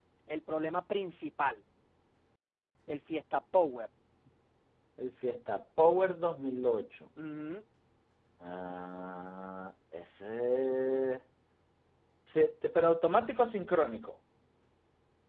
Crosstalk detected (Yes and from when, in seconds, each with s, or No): No